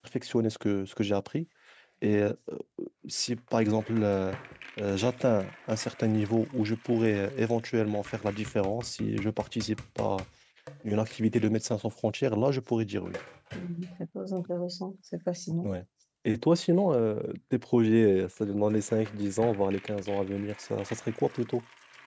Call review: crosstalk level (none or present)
none